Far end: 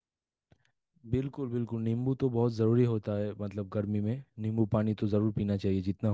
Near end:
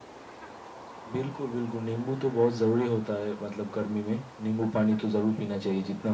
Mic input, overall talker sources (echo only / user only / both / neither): echo only